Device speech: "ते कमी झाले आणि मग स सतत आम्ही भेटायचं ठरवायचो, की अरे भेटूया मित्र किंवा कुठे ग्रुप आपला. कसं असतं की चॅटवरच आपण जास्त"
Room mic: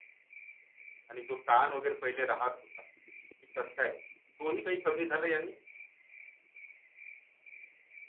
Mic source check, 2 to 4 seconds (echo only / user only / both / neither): user only